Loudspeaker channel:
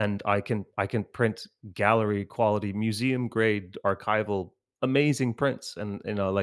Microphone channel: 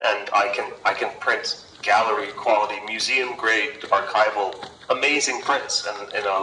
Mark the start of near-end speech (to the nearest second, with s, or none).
none